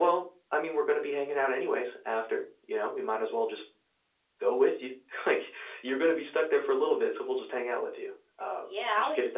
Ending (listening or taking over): taking over